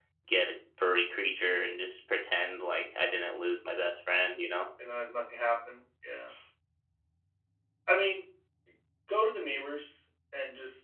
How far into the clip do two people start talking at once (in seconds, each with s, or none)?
none